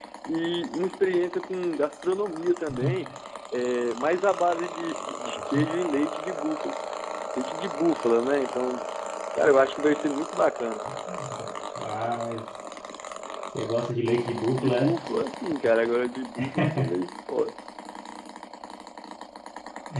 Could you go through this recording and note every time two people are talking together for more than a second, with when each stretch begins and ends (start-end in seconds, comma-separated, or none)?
none